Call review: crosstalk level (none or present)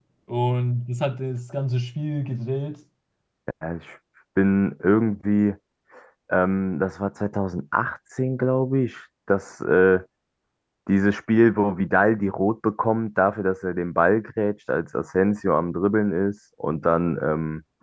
none